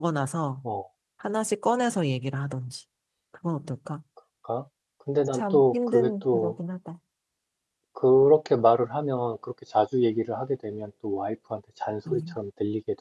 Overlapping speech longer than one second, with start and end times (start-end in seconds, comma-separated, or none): 5.3-6.5